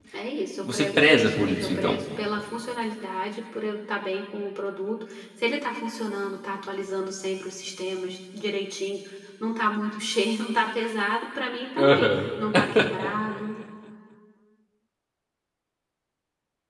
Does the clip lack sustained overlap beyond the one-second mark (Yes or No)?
No